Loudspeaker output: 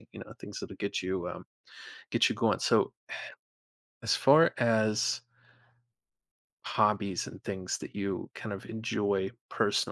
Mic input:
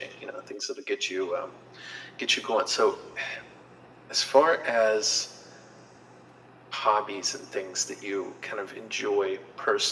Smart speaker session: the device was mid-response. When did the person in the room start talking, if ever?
none

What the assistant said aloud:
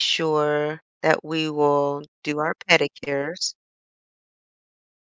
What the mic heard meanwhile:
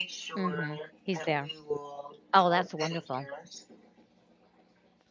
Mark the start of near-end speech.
0.4 s

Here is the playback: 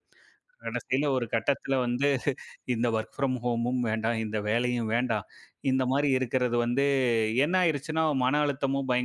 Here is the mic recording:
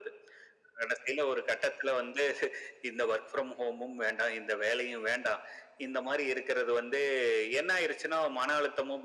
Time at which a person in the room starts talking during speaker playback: none

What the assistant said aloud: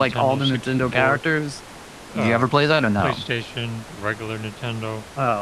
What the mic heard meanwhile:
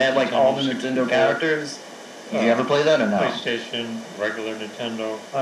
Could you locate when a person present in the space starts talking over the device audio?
none

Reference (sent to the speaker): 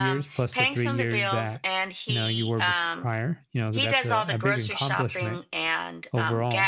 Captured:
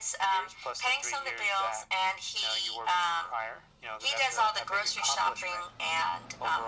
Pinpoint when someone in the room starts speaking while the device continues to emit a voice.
none

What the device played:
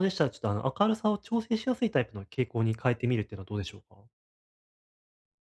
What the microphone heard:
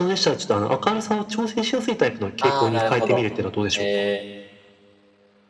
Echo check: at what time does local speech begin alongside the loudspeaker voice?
2.4 s

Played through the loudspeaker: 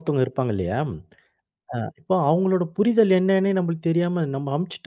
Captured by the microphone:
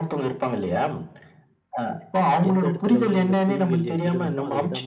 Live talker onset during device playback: 2.5 s

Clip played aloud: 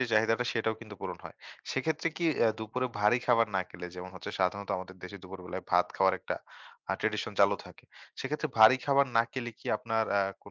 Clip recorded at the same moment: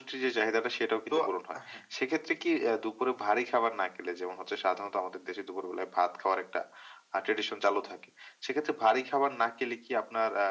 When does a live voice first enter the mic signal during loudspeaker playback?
1.1 s

